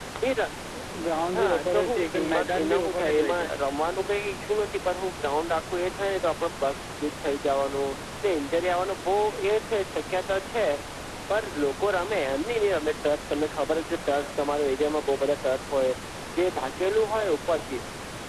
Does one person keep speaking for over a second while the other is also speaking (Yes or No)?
Yes